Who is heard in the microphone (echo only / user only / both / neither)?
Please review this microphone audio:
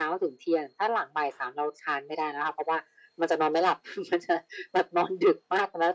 echo only